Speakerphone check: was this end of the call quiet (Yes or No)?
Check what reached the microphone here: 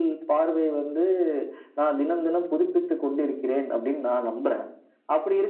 Yes